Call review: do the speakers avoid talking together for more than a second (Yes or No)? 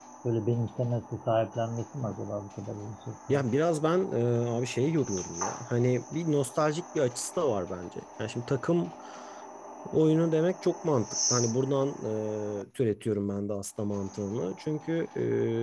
Yes